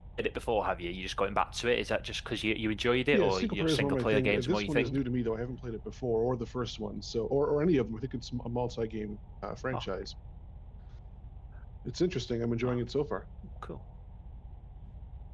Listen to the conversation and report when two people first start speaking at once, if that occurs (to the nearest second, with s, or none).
3 s